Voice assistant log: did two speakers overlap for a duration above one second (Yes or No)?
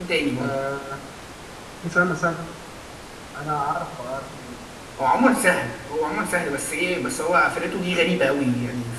No